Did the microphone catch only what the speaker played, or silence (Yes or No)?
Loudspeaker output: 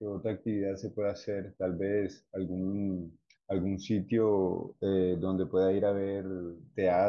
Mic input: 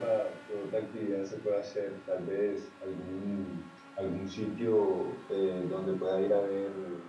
Yes